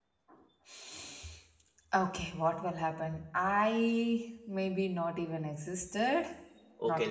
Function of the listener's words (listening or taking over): taking over